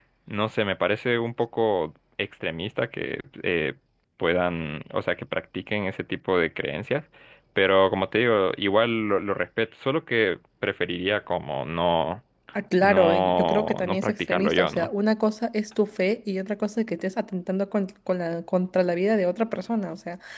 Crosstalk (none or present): present